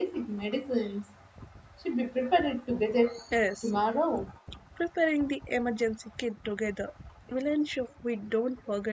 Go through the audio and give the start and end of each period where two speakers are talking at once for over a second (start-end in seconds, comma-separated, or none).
none